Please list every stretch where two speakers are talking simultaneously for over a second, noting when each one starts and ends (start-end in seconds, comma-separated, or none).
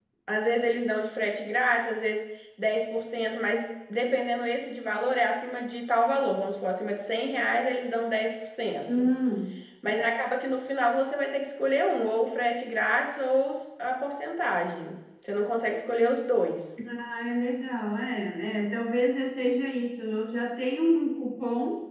none